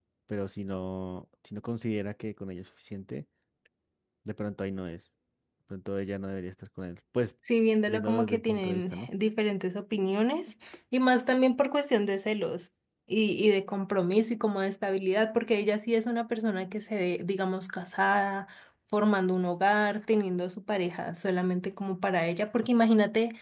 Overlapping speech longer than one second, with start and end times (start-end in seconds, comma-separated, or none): 7.9-9.1